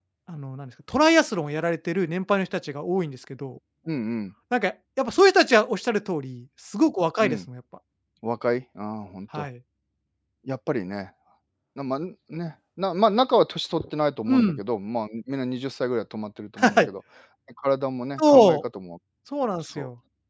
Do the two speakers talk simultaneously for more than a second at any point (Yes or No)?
No